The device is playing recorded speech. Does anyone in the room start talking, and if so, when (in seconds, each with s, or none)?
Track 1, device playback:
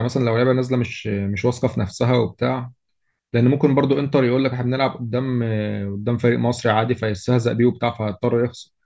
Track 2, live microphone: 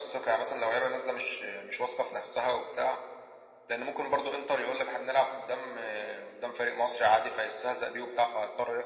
none